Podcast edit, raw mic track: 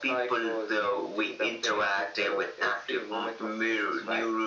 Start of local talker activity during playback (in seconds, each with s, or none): none